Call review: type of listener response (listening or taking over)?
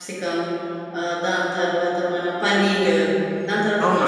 taking over